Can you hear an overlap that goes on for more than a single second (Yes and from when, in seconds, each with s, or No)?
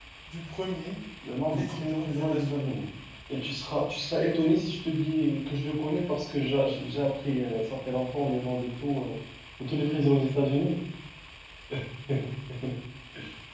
Yes, from 1.5 s